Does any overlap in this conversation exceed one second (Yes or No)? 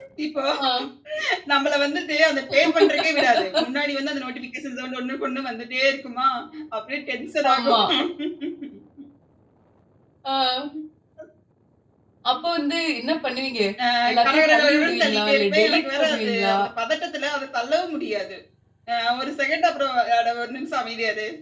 Yes